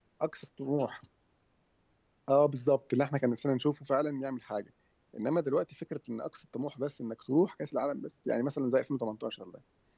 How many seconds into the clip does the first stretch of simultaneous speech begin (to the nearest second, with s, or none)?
none